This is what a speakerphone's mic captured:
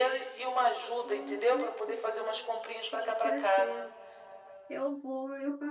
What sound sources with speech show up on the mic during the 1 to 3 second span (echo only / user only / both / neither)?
both